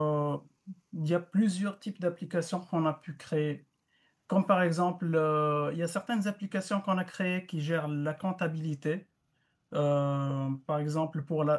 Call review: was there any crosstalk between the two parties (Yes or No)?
No